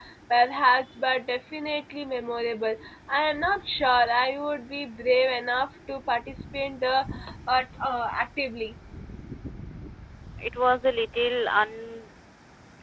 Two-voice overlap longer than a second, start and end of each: none

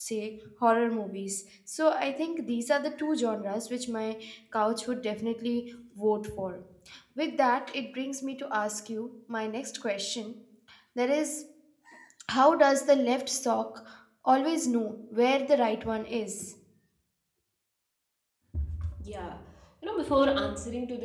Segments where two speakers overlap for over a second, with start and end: none

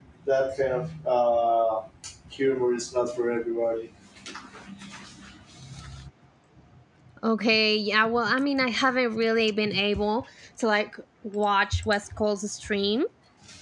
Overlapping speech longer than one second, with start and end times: none

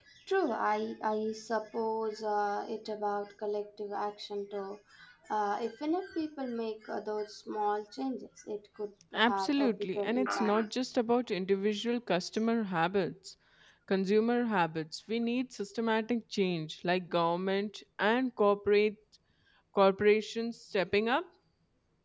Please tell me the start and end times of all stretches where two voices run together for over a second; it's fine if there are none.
9.1-10.7

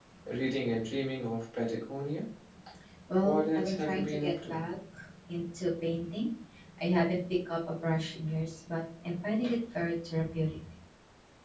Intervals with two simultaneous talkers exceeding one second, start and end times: 3.2-4.6

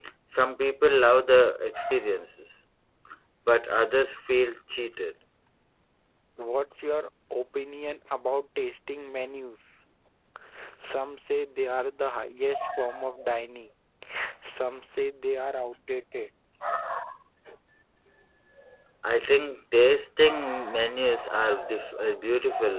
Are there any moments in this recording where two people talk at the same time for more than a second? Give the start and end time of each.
none

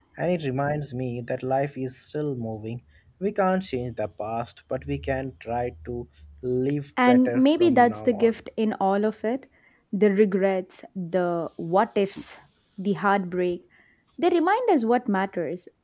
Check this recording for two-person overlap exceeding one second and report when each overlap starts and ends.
7.1-8.4

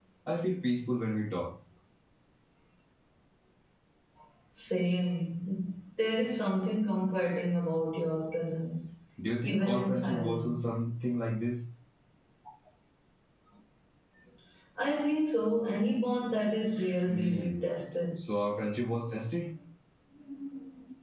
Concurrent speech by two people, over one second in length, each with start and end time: 9.4-10.6

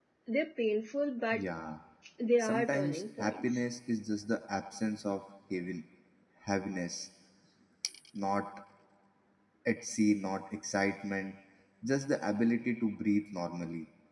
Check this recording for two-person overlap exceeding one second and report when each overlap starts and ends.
2.4-3.6

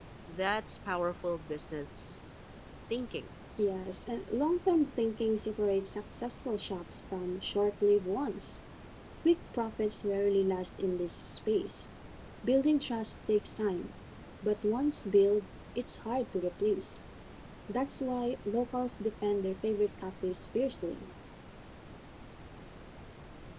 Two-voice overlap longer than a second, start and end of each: none

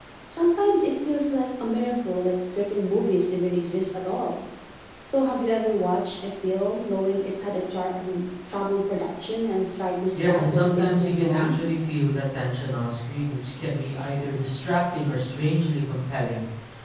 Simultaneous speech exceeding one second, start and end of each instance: 10.2-11.6

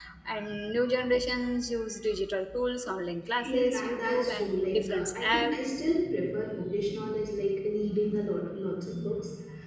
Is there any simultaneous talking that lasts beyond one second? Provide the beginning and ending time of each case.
3.4-5.5

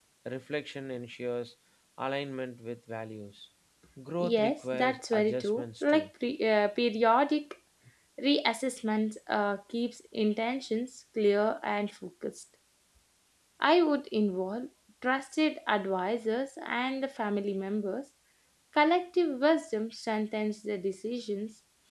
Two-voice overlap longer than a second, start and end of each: 4.2-6.1

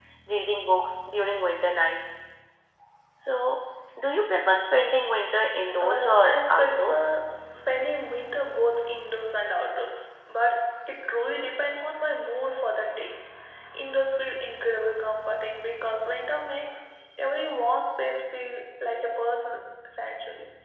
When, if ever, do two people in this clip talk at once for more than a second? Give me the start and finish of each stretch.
5.8-7.1

